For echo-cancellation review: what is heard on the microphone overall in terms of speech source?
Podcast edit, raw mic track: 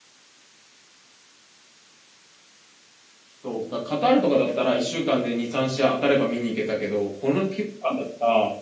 user only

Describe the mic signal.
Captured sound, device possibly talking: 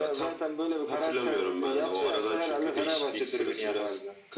echo only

